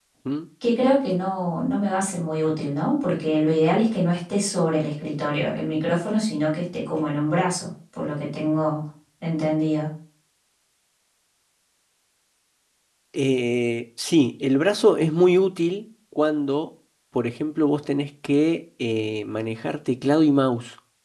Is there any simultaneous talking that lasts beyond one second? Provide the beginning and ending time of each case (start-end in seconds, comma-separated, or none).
none